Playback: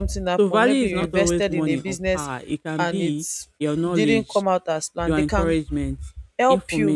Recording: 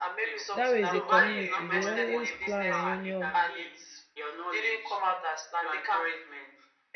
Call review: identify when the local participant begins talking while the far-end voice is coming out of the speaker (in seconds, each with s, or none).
0.5 s